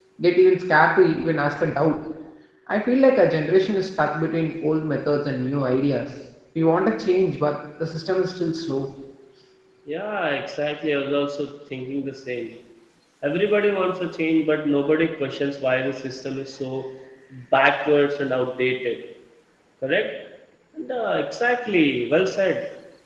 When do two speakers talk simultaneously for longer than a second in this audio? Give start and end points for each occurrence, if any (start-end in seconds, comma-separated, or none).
none